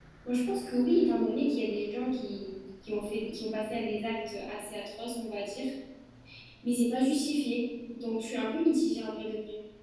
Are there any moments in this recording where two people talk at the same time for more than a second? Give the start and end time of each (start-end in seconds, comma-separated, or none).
none